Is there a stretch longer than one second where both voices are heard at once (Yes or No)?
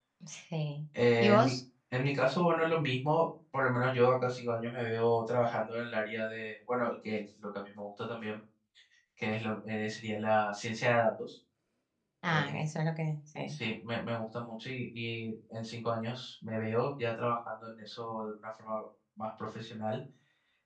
No